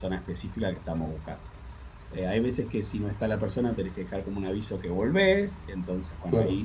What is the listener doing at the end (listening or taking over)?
listening